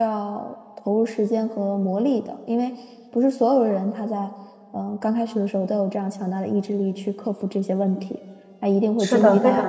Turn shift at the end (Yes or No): Yes